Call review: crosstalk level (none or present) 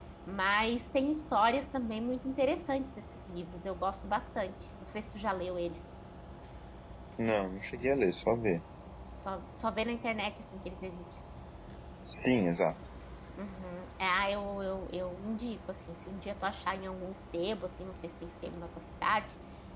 none